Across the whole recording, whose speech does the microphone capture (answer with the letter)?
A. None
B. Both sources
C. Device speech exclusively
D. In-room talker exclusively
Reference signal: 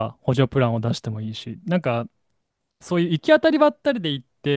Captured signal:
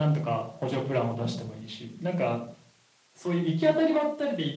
C